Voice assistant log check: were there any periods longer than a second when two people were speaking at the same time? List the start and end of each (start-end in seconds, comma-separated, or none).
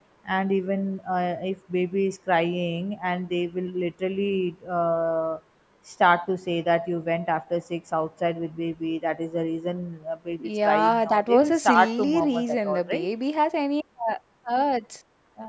10.4-13.1